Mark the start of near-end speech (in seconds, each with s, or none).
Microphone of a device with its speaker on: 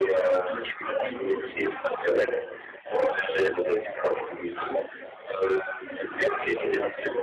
none